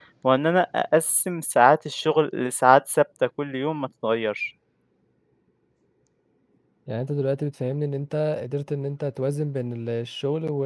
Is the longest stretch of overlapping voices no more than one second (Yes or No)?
Yes